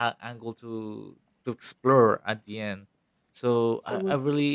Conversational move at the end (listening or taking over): listening